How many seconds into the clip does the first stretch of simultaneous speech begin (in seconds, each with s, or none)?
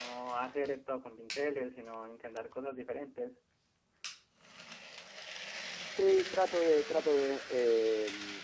none